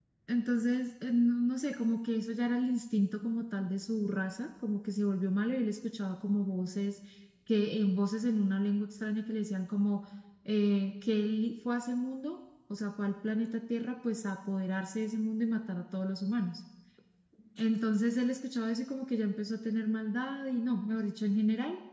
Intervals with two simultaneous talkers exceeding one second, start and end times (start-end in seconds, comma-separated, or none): none